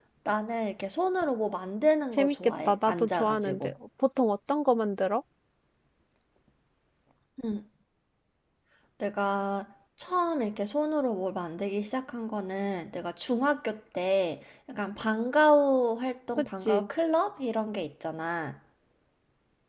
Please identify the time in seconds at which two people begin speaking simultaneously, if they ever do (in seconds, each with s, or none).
2.2 s